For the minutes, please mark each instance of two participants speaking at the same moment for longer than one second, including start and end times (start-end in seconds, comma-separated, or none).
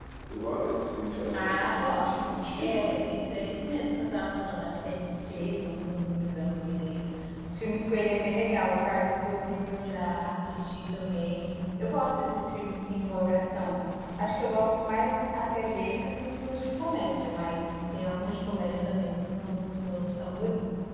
1.4-2.8